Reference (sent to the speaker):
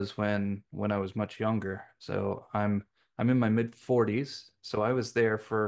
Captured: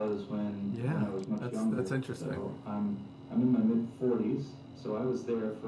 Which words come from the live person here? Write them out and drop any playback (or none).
Yeah. That's that's interesting.